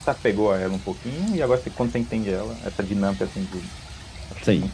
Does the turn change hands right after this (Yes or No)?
Yes